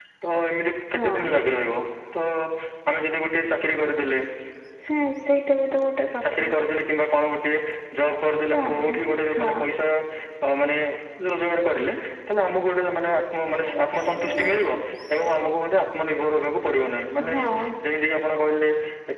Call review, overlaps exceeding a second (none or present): none